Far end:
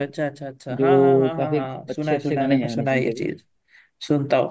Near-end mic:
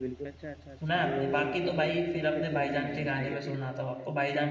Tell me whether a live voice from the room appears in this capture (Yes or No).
Yes